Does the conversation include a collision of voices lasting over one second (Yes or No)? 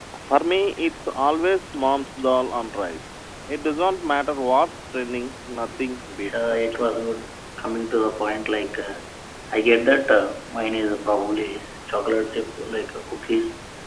No